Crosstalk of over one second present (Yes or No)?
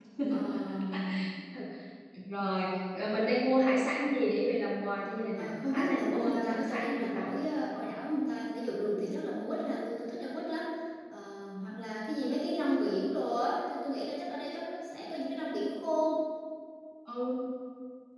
Yes